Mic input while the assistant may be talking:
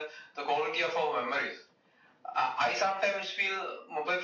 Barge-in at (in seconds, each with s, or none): none